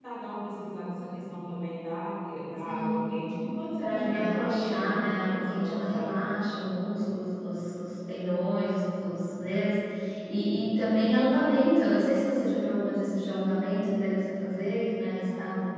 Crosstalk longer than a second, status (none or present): present